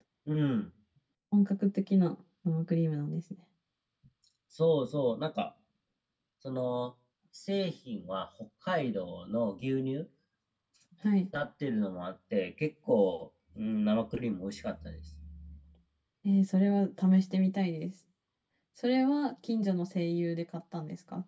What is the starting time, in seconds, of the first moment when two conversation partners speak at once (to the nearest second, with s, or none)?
none